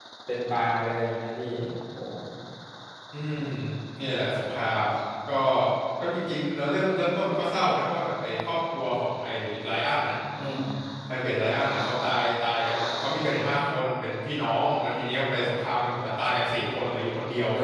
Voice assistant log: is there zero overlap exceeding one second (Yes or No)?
Yes